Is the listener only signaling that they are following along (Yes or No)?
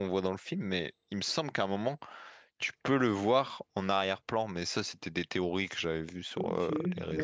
No